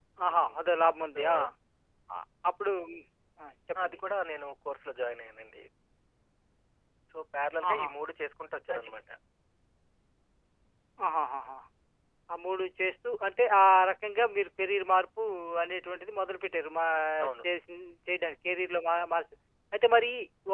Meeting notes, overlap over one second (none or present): none